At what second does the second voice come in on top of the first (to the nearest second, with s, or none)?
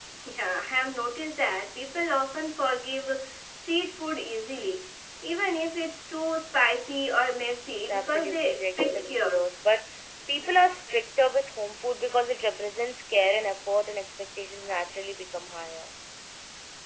8 s